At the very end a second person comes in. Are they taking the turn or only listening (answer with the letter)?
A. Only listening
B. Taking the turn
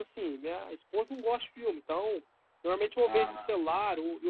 A